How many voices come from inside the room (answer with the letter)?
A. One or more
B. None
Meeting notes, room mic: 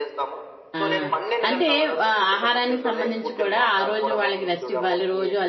A